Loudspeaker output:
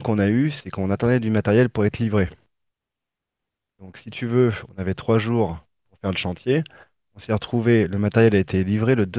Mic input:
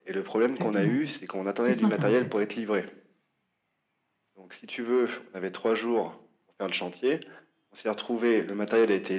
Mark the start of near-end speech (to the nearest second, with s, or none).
1 s